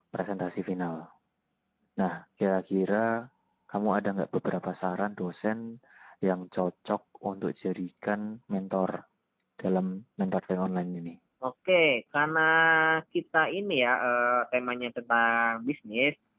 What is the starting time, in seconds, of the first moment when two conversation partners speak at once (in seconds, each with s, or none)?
none